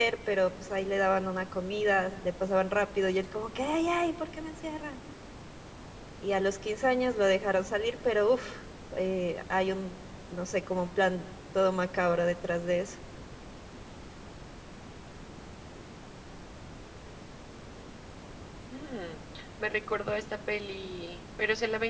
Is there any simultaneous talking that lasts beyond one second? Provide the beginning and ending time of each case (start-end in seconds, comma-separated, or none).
none